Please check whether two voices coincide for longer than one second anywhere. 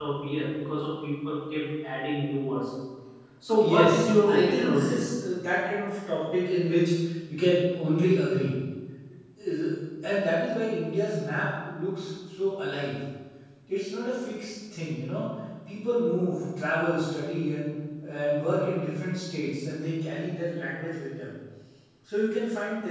Yes, from 3.6 s

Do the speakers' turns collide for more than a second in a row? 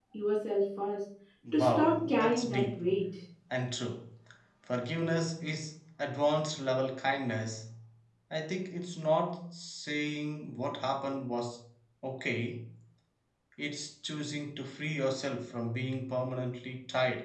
Yes, from 1.5 s

